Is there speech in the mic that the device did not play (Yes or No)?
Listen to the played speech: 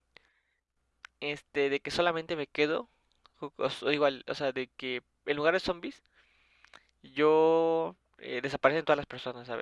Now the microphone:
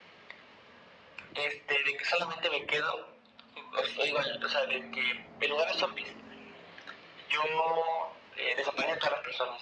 No